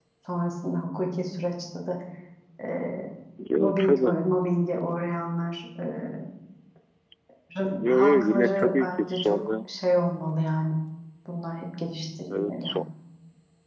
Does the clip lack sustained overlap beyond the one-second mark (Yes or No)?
No